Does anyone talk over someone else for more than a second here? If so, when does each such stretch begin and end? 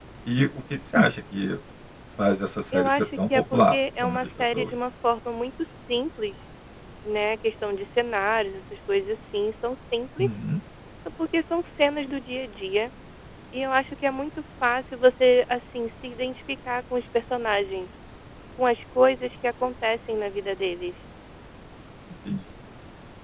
2.7-4.7

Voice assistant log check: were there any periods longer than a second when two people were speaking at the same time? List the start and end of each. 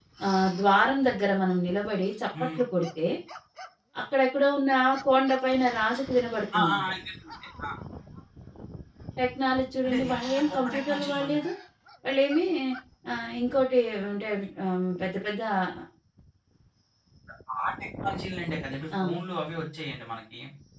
9.8-11.4

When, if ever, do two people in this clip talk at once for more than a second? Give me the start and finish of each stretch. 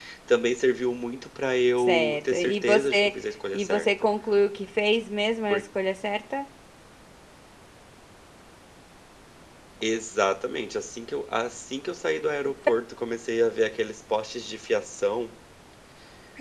1.8-3.1

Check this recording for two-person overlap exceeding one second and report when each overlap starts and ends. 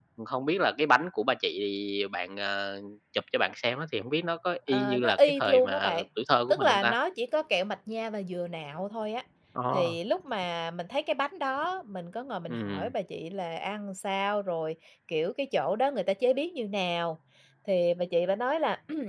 4.7-6.0

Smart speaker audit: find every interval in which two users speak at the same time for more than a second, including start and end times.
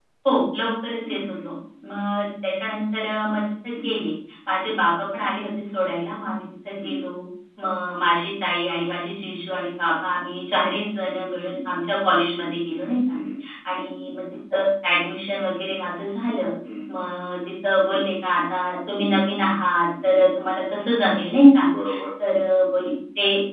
none

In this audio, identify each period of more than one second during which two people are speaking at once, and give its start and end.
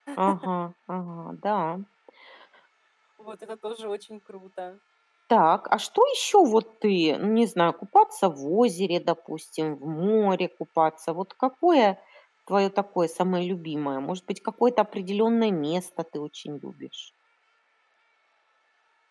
none

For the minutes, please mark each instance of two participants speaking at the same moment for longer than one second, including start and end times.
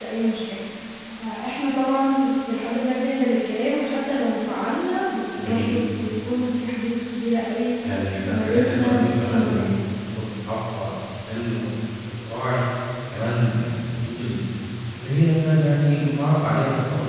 8.3-10.0

